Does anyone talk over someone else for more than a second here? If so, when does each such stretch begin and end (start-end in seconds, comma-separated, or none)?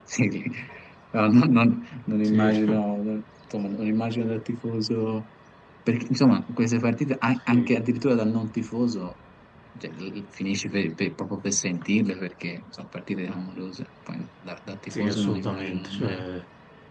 14.9-16.2